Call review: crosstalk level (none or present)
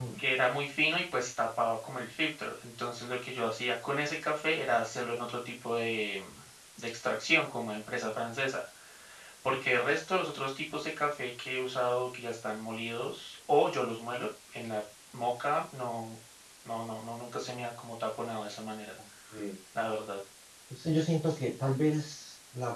none